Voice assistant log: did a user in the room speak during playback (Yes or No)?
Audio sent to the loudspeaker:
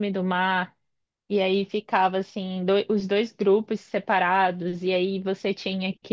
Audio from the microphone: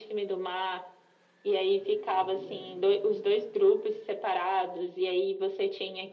Yes